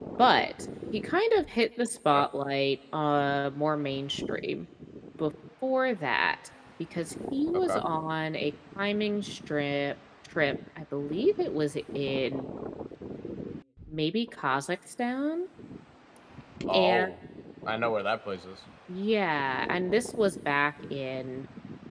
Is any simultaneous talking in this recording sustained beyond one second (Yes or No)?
No